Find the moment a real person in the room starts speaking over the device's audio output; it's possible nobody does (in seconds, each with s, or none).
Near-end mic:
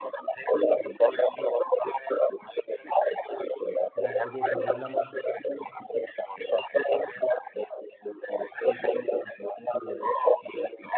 4.0 s